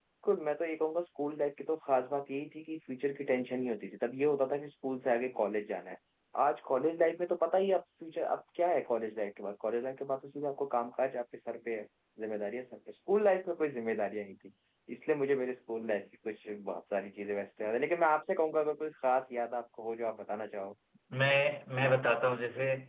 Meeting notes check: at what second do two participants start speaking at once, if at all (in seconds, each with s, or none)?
none